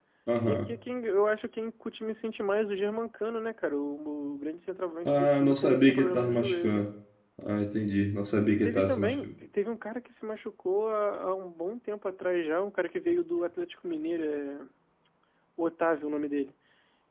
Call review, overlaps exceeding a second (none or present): present